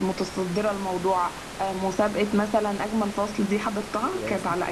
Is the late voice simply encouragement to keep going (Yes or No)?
No